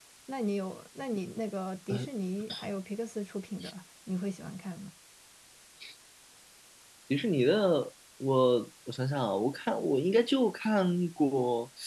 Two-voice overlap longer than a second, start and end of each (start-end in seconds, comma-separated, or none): none